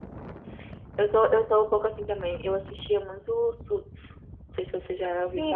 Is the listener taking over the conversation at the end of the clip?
Yes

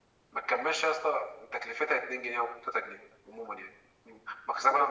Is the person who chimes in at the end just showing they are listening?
No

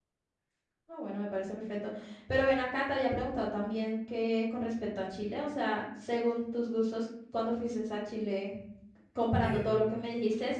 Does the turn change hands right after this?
No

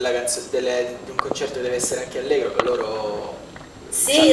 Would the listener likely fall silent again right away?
No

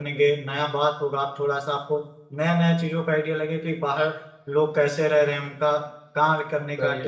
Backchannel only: Yes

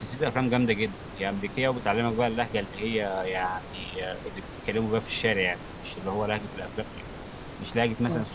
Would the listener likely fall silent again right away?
Yes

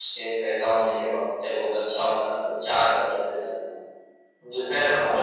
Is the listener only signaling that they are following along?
Yes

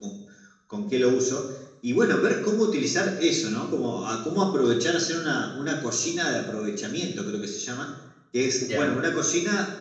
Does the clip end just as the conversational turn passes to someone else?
No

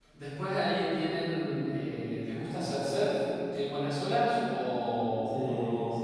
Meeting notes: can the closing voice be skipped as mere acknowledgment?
No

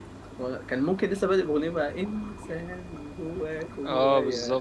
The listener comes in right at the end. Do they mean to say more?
Yes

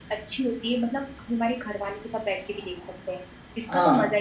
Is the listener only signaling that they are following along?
No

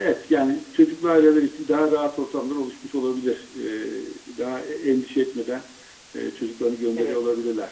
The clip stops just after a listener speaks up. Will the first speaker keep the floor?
Yes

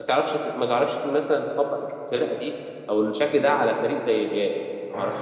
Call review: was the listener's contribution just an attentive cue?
No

